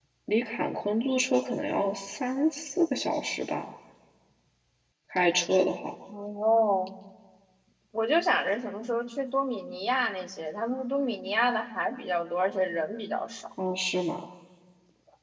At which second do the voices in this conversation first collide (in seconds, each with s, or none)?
none